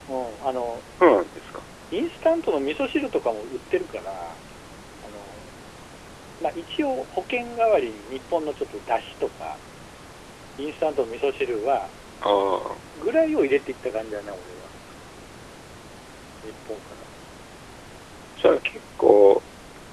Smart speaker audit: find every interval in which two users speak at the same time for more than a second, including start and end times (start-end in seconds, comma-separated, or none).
none